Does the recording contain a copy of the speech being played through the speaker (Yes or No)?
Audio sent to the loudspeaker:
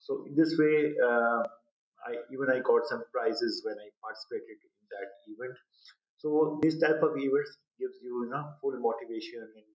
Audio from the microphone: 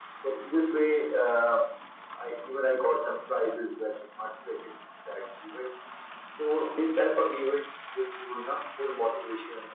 Yes